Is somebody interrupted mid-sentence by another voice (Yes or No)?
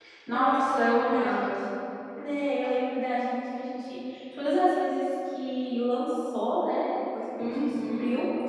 Yes